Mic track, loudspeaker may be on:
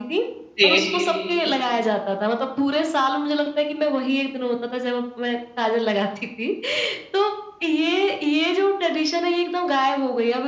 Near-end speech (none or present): present